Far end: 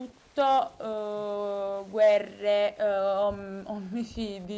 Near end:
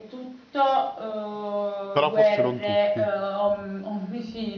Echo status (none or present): present